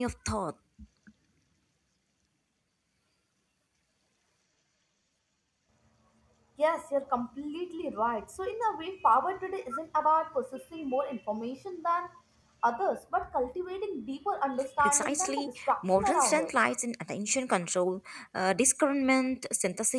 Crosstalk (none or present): present